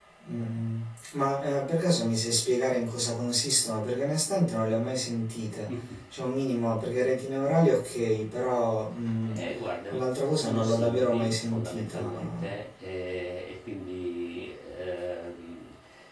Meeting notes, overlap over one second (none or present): present